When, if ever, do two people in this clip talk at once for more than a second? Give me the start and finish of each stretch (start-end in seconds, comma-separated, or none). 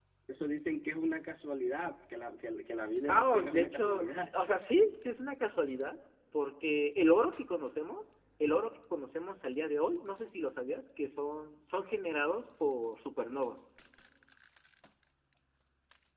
3.1-4.3